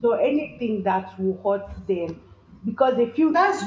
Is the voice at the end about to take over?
No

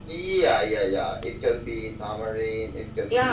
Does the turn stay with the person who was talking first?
No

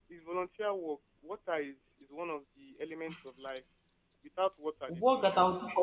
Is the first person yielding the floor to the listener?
Yes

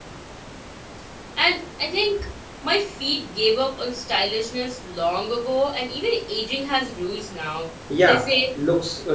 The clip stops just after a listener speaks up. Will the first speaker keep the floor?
No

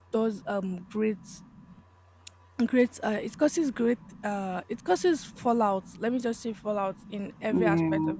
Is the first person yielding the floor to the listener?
No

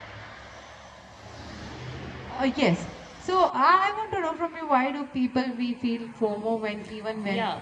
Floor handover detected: Yes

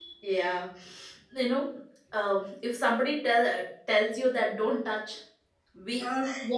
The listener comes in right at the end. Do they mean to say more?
No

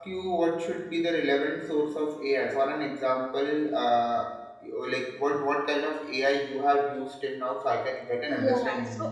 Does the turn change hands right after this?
Yes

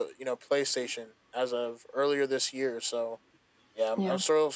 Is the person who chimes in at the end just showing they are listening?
Yes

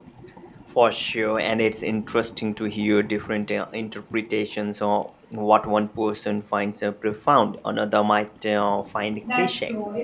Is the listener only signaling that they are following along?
No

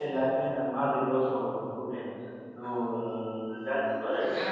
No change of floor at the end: No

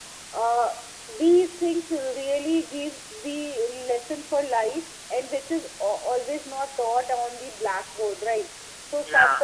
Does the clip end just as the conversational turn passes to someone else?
No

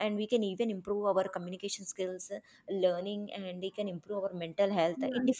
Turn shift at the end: No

